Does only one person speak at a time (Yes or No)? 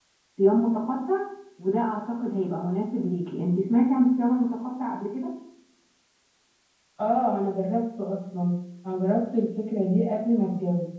Yes